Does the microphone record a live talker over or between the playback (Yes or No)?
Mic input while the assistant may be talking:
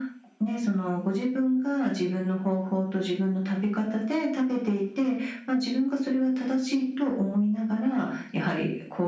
No